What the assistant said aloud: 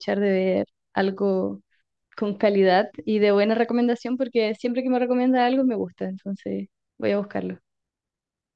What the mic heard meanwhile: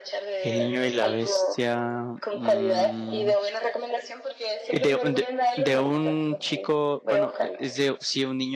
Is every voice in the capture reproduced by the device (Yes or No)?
No